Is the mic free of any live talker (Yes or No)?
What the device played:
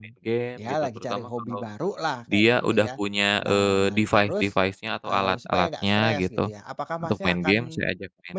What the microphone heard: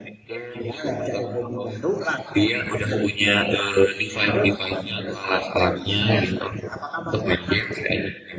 Yes